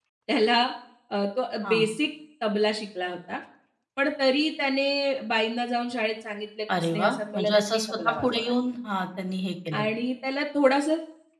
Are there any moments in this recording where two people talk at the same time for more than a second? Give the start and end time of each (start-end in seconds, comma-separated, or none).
6.8-8.5